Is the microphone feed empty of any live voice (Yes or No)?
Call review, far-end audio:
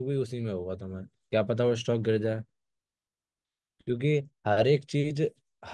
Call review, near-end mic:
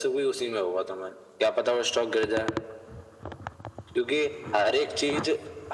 Yes